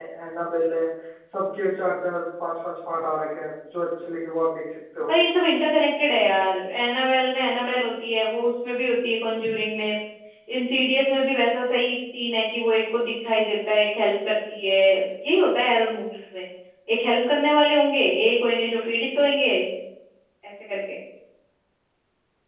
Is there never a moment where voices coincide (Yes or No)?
Yes